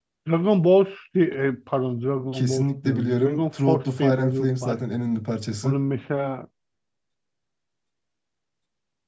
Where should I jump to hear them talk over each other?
2.3 s

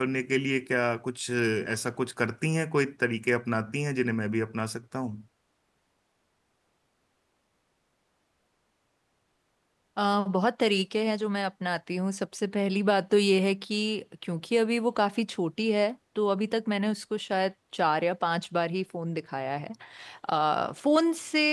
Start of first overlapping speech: none

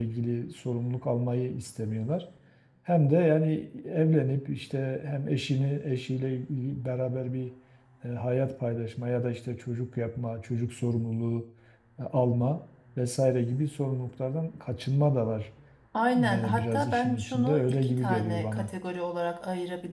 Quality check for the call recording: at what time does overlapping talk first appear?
16.1 s

